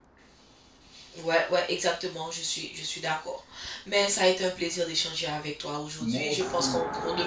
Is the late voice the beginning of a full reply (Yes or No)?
No